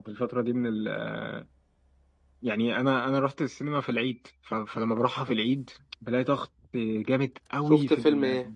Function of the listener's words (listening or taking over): taking over